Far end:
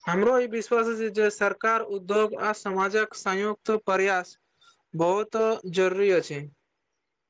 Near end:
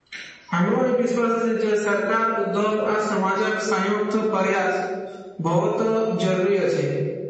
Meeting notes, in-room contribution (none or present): none